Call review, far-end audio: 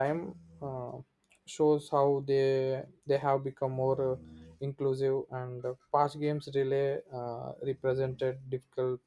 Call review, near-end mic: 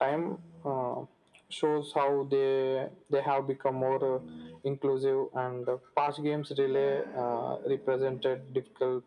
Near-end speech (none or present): present